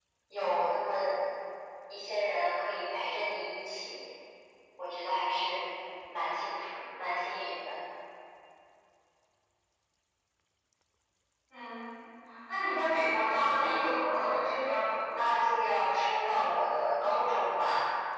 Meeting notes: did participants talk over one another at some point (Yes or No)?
Yes